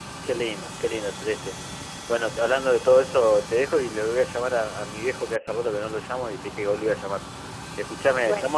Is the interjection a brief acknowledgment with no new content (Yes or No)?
Yes